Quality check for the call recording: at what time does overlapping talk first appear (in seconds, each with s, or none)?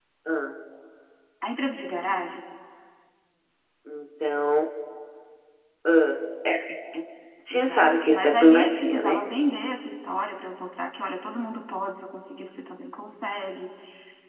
7.5 s